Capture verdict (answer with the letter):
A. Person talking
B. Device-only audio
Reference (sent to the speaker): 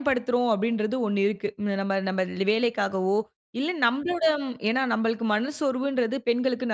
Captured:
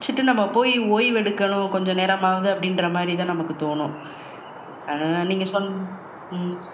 A